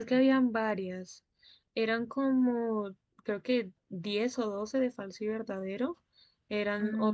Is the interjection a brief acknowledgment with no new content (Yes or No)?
Yes